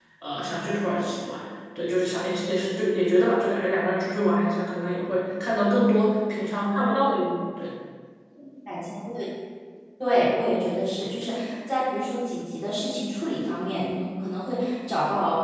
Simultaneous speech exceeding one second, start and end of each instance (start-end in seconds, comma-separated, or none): none